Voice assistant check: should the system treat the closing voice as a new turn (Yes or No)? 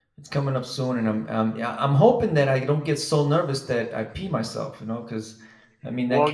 Yes